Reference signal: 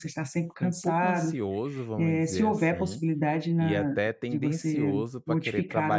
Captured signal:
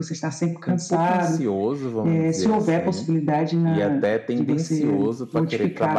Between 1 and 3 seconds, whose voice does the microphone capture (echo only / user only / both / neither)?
echo only